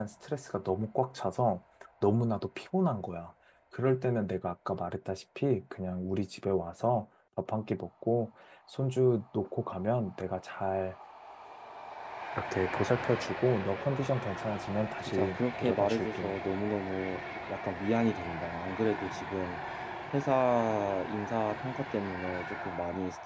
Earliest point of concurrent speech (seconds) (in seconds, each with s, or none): 15.1 s